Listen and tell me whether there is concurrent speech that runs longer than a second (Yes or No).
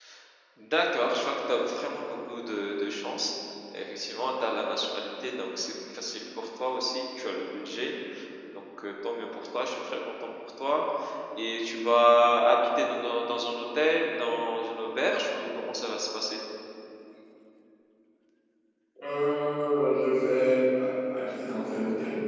No